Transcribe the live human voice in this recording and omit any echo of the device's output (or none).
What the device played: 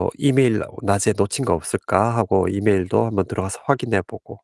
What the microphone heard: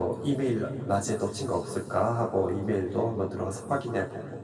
none